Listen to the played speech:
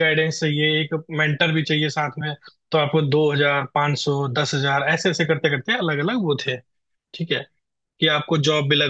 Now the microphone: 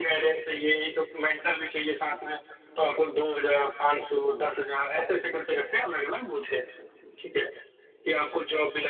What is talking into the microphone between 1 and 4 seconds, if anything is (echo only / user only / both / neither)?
echo only